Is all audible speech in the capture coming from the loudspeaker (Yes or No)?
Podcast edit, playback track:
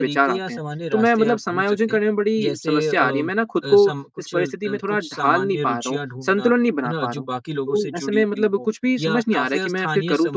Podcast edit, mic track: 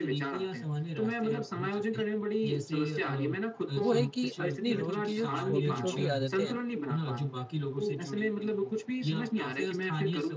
No